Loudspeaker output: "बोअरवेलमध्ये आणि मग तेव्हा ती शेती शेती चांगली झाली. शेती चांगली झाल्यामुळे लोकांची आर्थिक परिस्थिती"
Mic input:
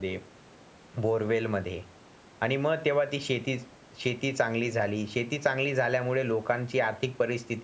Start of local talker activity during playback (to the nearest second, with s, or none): none